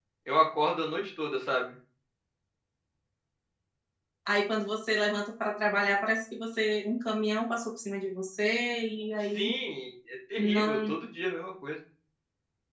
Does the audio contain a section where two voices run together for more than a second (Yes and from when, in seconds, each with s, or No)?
No